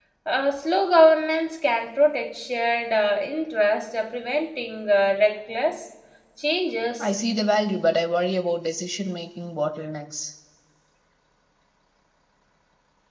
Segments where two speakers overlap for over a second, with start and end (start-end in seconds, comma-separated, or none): none